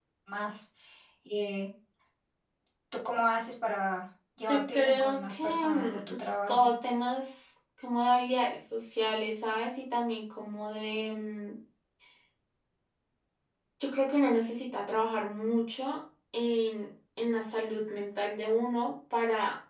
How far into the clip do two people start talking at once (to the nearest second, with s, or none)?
4 s